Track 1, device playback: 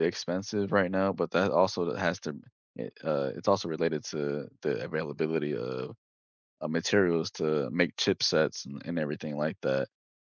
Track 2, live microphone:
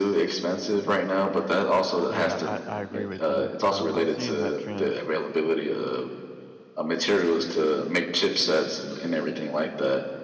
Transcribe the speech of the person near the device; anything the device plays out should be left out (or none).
Yeah, I, I agree with you. Um, I'm seeing that trend,